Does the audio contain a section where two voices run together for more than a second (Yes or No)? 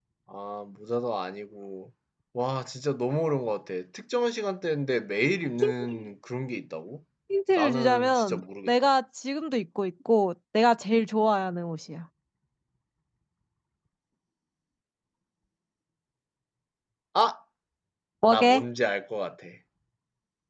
Yes